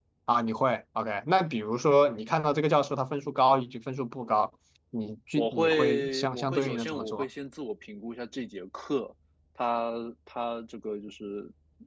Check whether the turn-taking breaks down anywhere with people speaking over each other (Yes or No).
Yes